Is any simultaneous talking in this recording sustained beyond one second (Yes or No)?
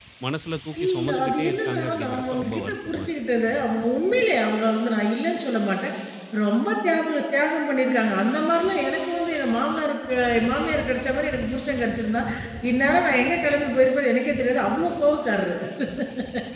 Yes